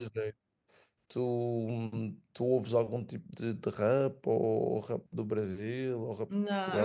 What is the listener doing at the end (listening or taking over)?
taking over